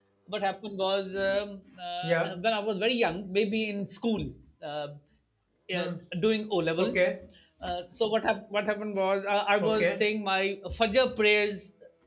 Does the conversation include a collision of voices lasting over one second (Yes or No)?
No